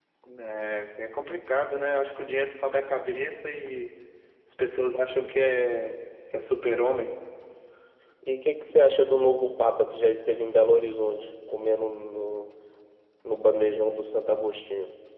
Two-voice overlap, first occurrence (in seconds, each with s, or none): none